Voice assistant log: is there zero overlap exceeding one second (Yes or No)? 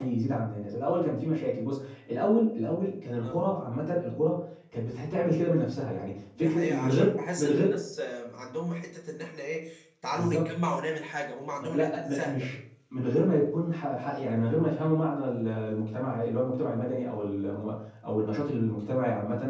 No